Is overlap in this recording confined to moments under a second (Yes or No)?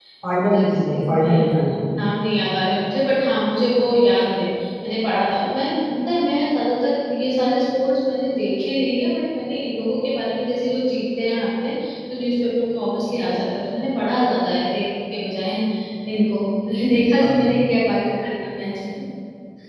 No